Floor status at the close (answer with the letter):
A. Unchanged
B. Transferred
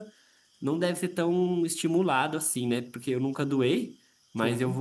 A